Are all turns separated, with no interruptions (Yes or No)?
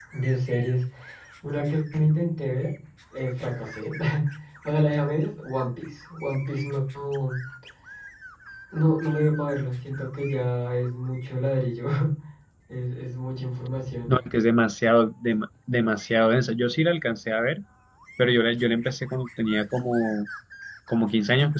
Yes